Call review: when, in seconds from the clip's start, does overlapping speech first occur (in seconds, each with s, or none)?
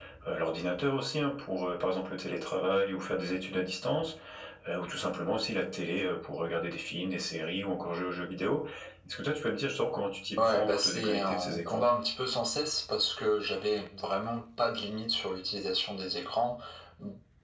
10.4 s